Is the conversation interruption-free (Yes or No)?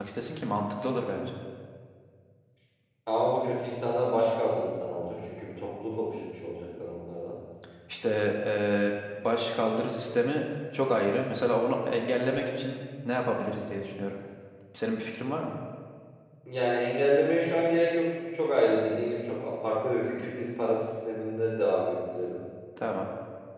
Yes